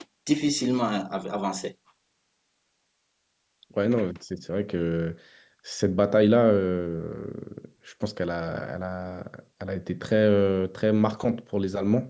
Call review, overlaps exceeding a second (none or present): none